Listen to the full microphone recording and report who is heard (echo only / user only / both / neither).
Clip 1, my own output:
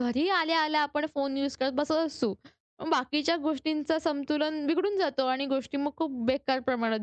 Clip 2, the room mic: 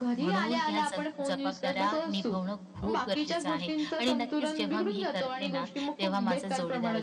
both